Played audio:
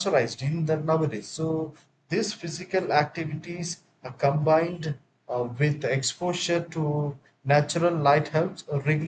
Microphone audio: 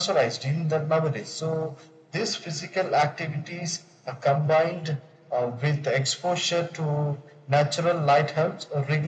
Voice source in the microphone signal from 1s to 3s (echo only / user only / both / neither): echo only